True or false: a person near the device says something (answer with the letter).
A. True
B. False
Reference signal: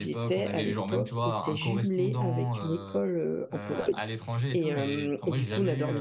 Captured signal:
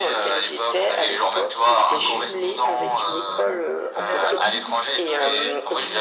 A